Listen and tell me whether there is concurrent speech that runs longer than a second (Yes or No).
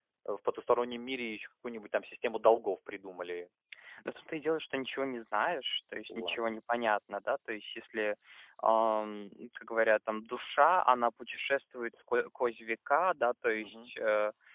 No